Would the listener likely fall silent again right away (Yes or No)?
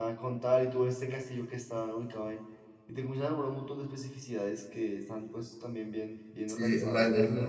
No